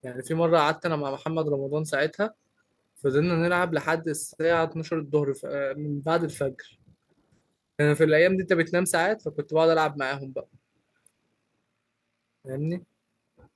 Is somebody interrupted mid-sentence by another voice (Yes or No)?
No